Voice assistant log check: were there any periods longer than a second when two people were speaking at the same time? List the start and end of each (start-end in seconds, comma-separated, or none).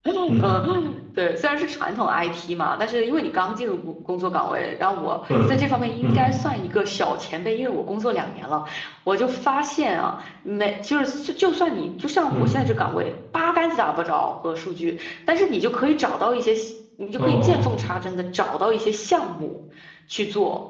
none